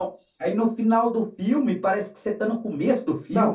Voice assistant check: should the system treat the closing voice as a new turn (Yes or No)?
Yes